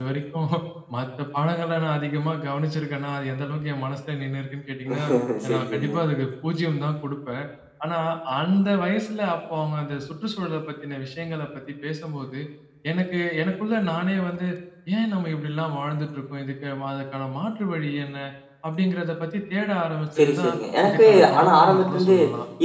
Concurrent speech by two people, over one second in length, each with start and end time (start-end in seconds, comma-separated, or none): 20.9-22.1